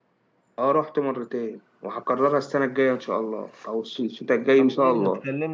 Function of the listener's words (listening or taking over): taking over